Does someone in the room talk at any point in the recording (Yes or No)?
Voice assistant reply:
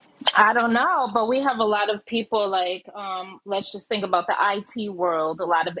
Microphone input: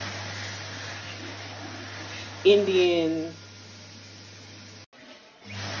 Yes